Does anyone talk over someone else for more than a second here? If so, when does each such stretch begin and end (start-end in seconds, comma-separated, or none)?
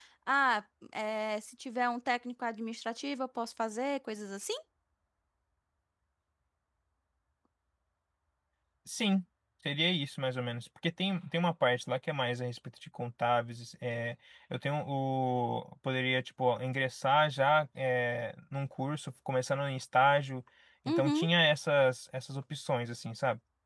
none